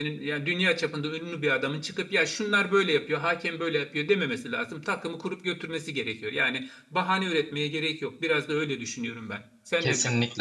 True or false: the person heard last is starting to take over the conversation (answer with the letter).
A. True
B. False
A